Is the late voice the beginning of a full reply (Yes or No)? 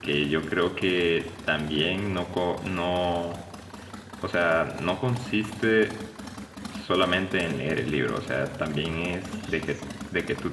No